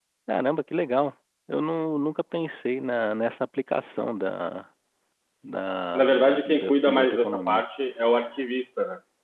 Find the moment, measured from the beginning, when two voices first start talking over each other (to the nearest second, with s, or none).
6 s